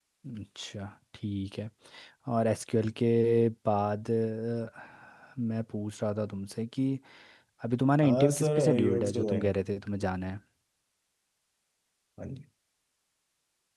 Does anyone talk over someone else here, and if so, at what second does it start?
8.1 s

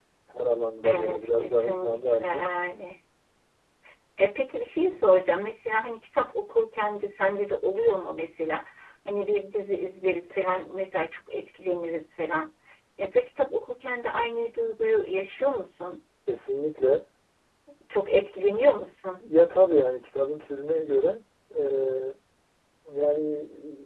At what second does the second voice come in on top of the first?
0.8 s

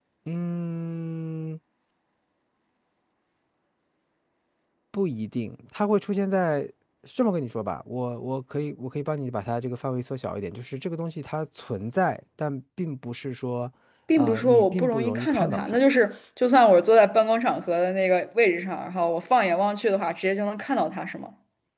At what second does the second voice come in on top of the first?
14.2 s

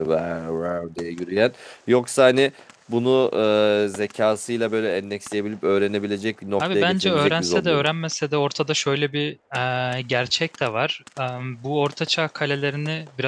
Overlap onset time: 6.6 s

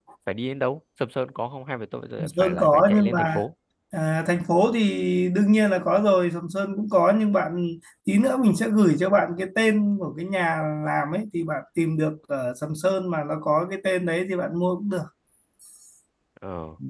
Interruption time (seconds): 2.2 s

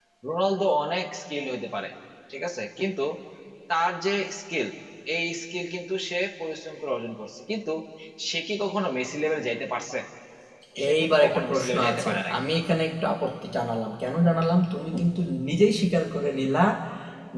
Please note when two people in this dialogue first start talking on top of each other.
10.9 s

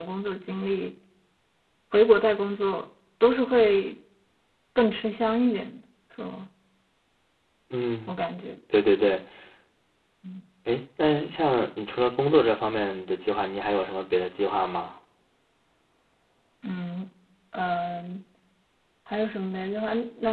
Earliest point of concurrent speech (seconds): none

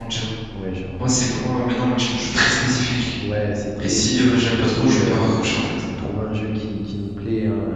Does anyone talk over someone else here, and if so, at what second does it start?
3.8 s

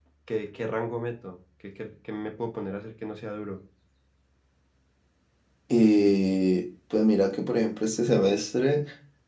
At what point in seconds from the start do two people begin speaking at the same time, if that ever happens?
none

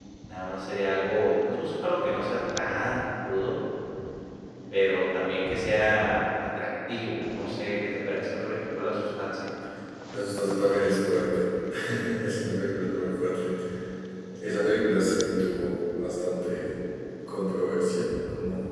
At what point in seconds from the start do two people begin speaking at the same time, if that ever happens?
none

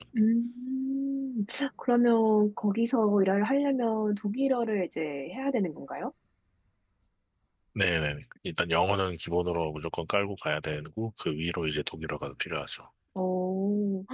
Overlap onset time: none

